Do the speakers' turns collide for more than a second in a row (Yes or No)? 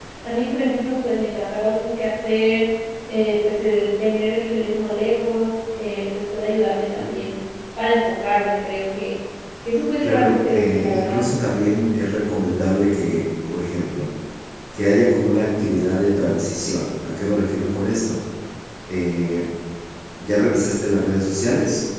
Yes